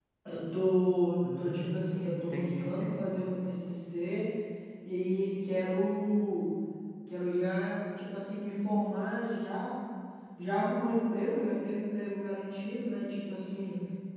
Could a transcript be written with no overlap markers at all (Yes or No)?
No